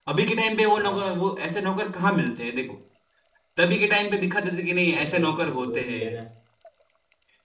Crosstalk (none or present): present